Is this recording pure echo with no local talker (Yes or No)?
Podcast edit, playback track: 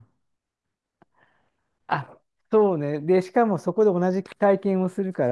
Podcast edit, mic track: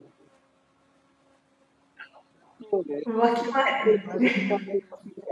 No